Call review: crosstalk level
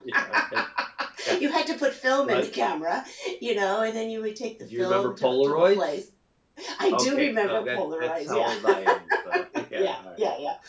present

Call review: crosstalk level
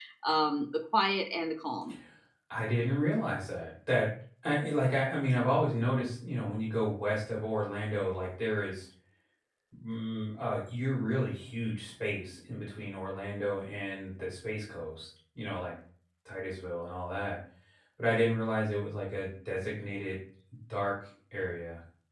none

